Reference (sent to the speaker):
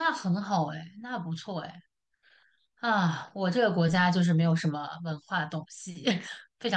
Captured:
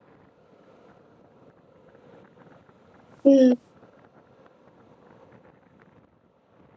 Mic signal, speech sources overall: user only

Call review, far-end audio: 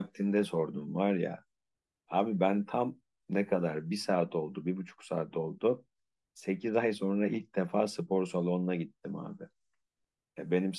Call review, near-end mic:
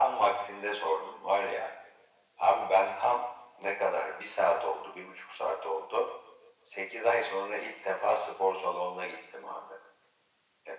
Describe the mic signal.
echo only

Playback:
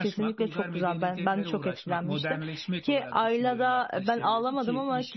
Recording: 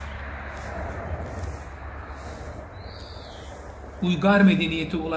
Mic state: user only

